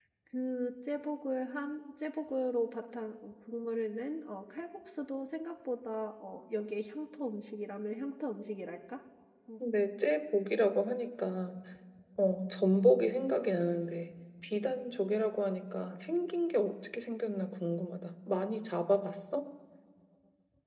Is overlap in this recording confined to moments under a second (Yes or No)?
Yes